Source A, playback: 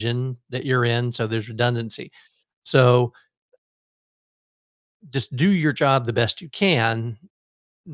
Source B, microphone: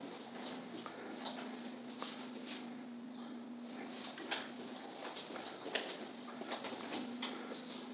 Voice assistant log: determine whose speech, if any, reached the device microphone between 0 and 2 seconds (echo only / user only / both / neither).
neither